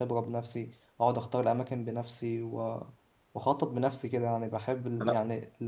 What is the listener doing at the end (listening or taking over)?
listening